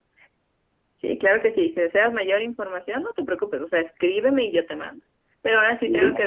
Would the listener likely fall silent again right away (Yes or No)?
Yes